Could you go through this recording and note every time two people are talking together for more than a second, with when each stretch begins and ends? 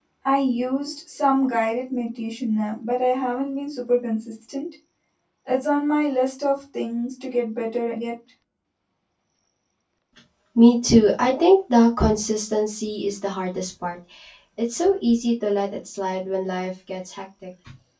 none

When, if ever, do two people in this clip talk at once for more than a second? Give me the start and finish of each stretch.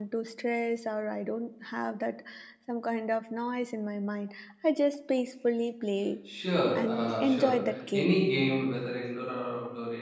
6.8-8.2

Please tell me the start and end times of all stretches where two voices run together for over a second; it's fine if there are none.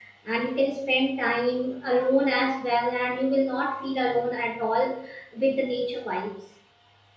none

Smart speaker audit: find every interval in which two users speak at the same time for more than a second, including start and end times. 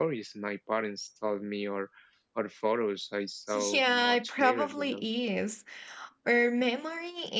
3.5-4.9

